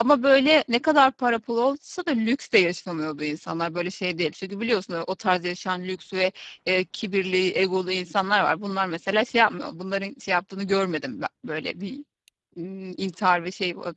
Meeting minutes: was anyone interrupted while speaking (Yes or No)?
No